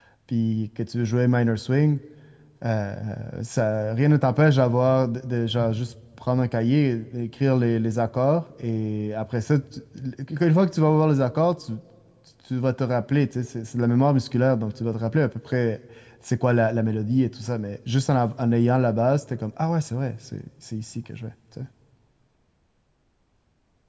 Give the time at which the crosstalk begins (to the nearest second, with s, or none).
none